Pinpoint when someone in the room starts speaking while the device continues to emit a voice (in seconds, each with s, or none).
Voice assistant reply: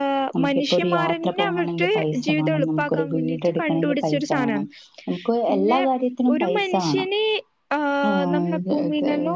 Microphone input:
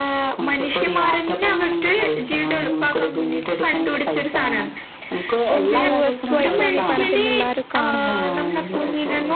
5.6 s